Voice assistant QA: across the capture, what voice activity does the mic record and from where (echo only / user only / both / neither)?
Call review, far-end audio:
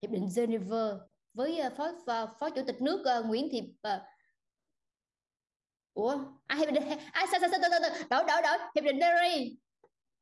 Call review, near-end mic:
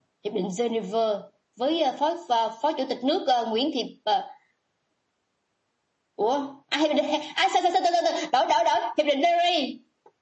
echo only